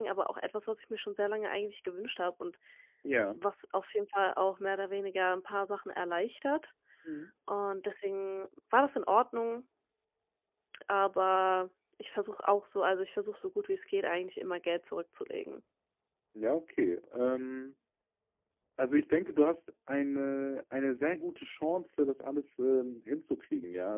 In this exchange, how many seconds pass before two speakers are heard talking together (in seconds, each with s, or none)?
none